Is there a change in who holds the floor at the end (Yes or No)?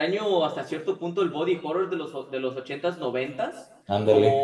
No